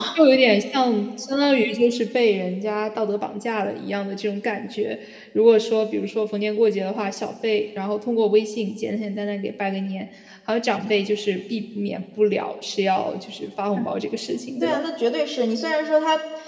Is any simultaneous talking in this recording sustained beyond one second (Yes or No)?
No